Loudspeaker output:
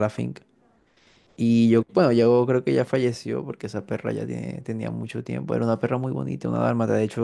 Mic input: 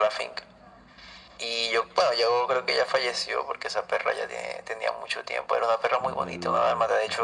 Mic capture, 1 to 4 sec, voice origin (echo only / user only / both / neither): echo only